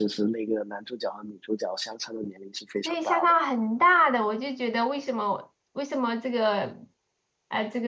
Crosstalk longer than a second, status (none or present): none